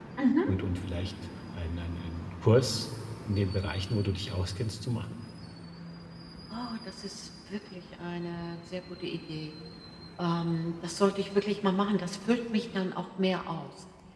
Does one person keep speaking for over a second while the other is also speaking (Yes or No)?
No